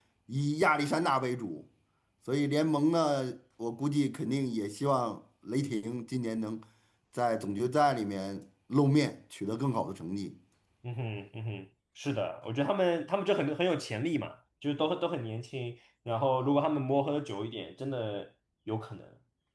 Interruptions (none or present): none